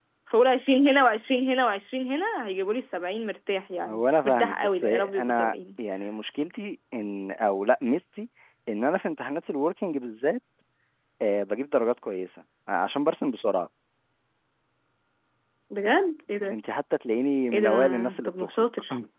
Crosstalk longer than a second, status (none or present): present